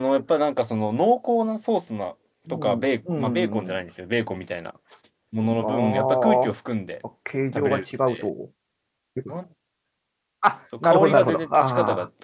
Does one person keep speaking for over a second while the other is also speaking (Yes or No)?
Yes